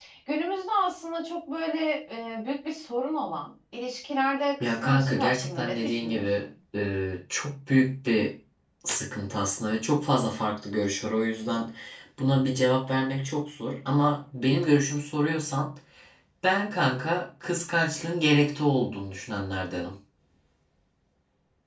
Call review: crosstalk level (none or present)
present